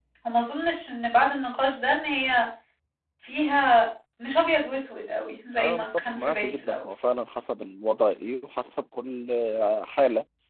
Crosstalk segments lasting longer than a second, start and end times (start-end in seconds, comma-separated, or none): 5.6-6.8